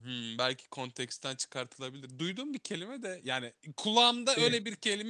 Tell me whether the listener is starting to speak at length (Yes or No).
No